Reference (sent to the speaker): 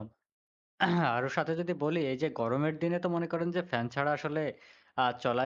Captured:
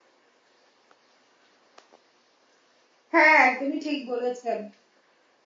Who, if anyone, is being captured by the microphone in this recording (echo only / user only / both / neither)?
user only